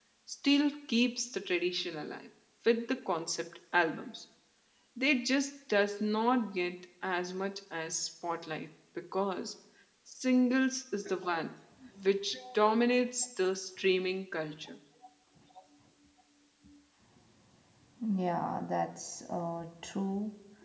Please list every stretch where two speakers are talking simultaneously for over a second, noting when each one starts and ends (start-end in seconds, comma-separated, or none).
none